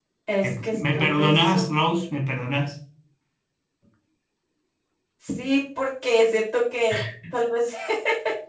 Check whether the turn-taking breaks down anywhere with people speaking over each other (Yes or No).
Yes